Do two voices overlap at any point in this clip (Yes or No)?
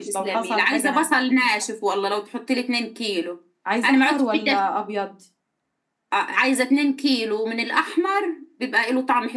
Yes